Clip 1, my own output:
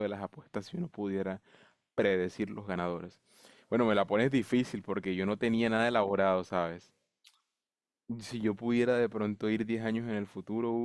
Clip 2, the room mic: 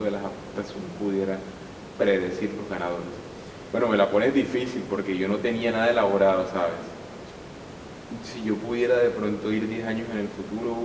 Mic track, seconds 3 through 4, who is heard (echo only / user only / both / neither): echo only